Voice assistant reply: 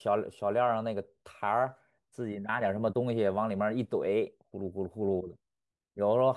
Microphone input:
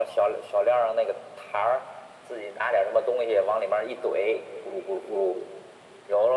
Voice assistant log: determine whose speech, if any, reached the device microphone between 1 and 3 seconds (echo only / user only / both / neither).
echo only